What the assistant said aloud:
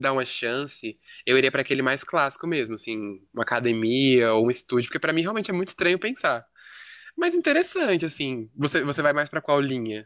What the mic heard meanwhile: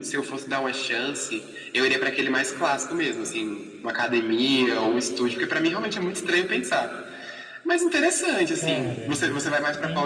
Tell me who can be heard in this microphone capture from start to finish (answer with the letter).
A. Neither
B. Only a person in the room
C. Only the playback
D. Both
D